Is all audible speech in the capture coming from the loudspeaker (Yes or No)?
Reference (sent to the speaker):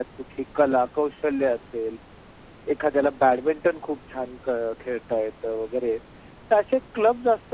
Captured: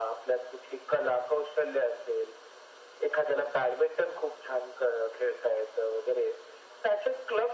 Yes